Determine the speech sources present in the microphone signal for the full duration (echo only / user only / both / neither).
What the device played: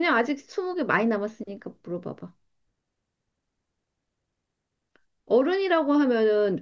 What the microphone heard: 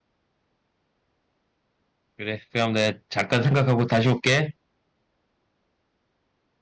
user only